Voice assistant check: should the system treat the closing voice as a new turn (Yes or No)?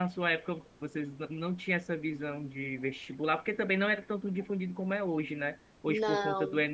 No